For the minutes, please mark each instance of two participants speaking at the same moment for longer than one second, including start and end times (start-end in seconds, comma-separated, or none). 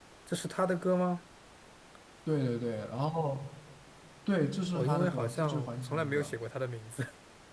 4.7-6.3